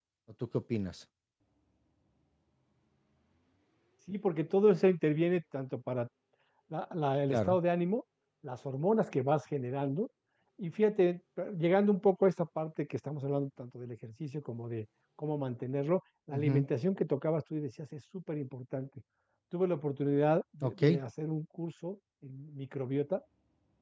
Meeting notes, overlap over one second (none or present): none